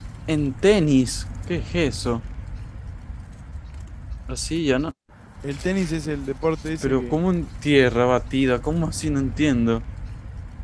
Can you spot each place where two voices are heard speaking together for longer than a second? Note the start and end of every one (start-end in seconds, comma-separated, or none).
none